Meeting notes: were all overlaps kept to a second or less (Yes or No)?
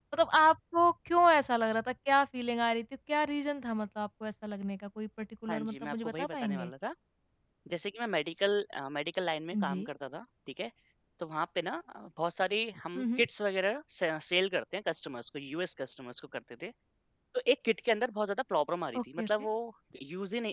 No